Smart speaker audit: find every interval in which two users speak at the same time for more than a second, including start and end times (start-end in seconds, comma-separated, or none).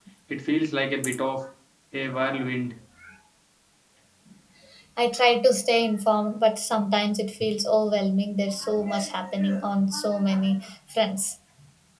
none